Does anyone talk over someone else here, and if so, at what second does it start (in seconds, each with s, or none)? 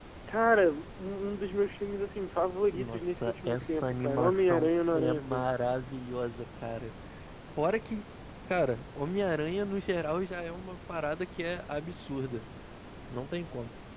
2.7 s